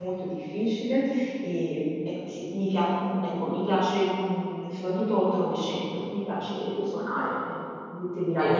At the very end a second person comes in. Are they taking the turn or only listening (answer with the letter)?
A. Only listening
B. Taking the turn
A